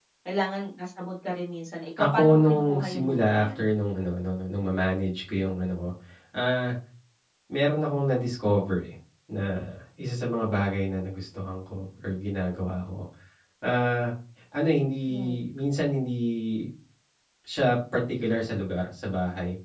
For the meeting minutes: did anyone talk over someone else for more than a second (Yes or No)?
Yes